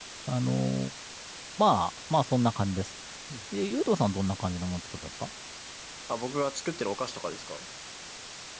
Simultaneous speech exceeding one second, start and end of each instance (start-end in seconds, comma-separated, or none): none